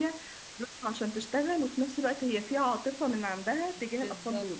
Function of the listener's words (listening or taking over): taking over